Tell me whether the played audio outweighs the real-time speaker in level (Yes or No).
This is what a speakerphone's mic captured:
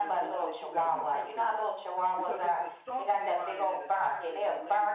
Yes